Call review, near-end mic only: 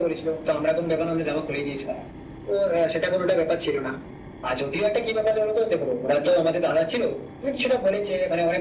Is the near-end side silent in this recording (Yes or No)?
Yes